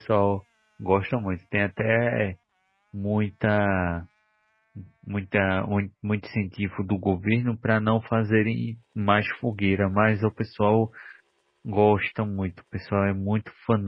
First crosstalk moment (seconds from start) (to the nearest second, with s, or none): none